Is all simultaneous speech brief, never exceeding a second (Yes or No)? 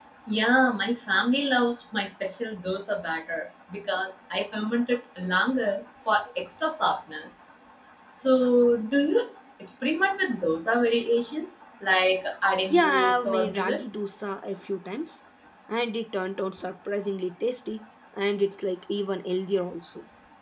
No